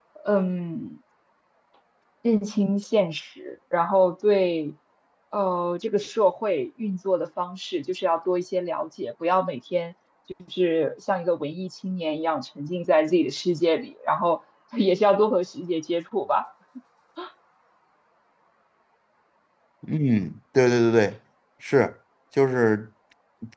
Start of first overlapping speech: none

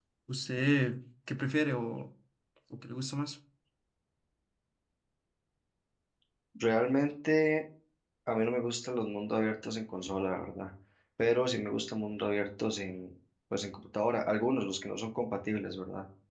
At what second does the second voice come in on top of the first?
none

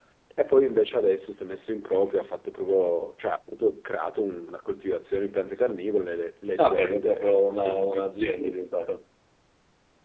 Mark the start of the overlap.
6.6 s

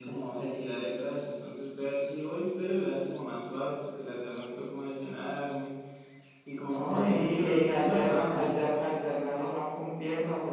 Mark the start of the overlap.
6.6 s

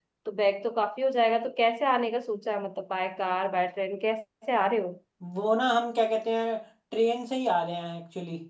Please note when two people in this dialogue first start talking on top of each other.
none

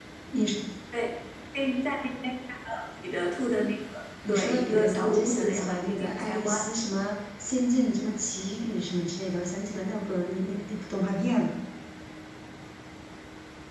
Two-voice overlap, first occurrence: 4.3 s

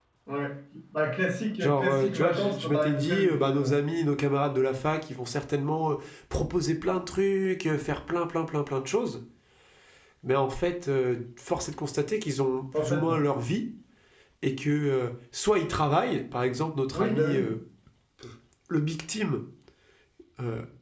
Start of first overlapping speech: 1.6 s

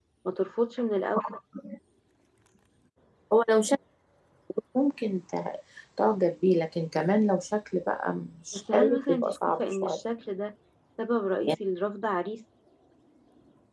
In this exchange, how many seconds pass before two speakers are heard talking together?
8.5 s

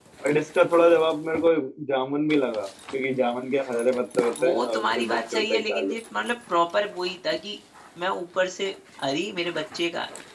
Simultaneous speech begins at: 4.4 s

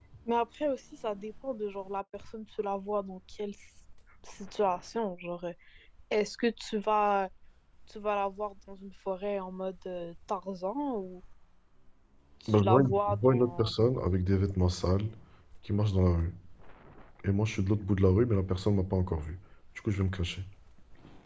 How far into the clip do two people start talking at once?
12.5 s

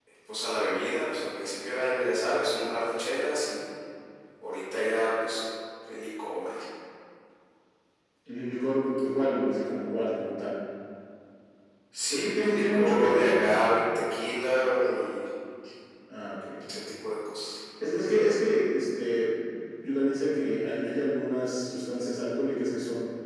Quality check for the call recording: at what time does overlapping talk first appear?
12.1 s

